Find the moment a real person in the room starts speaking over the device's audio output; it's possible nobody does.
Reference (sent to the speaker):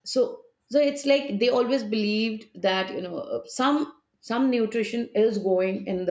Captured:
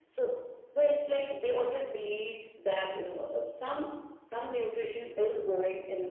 none

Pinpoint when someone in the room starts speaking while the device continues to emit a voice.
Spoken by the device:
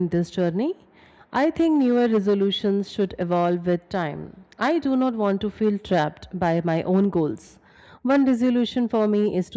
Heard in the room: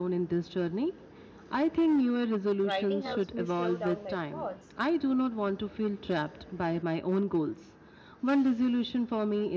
2.6 s

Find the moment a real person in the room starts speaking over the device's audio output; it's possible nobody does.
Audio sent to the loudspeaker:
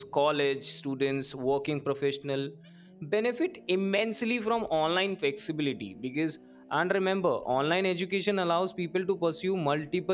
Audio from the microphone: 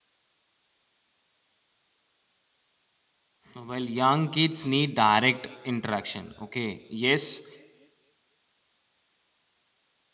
3.6 s

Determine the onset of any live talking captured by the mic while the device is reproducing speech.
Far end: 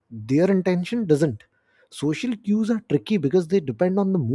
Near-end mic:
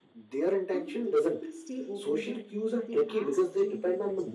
0.8 s

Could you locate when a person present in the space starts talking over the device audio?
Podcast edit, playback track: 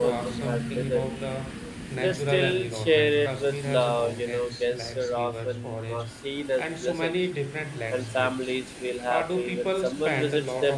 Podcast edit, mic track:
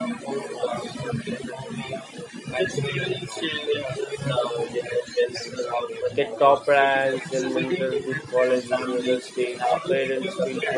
6.1 s

